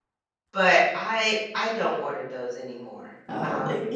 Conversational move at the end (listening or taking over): taking over